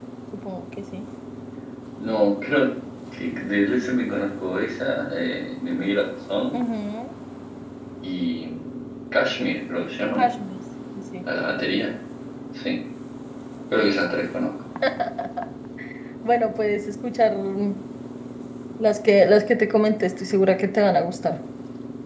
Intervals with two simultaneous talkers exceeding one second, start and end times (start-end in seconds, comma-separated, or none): none